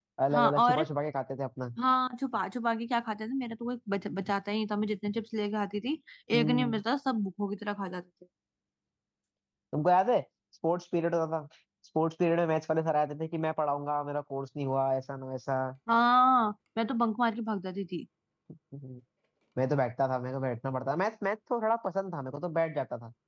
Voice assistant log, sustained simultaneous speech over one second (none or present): none